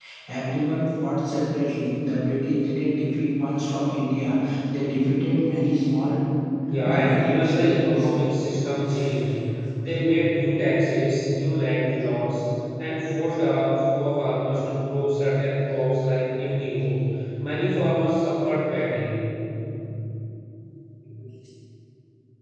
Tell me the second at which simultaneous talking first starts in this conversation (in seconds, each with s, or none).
6.9 s